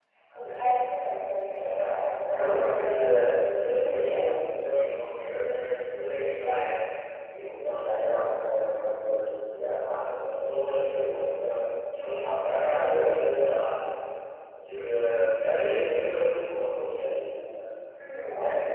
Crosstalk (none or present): present